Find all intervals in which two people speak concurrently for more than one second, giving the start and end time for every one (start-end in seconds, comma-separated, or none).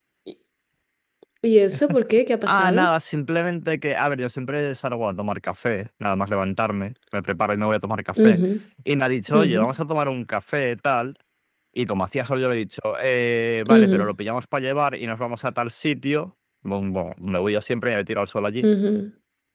none